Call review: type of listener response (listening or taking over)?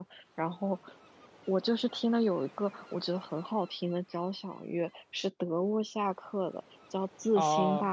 listening